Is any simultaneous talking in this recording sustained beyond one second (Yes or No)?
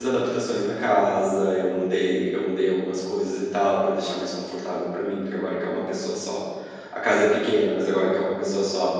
No